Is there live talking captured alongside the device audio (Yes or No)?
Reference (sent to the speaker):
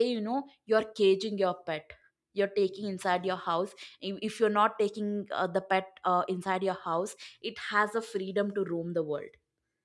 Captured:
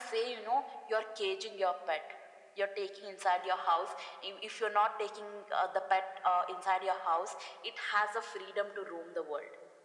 No